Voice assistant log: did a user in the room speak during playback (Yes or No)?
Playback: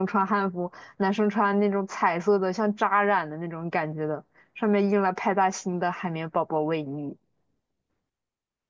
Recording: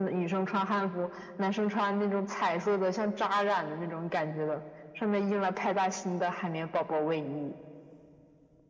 No